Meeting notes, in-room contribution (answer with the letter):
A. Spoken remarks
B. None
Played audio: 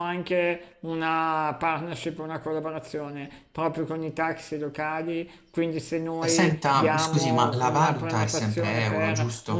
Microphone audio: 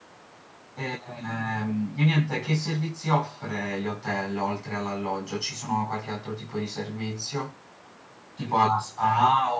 A